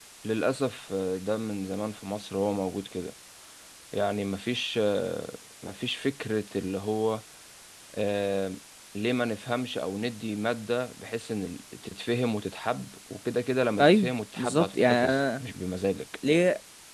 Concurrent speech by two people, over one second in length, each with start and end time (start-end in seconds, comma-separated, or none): 13.8-15.4